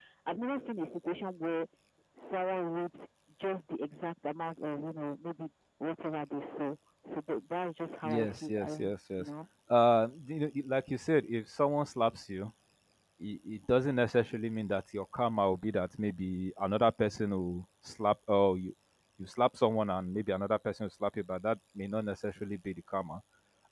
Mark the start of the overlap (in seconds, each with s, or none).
8.0 s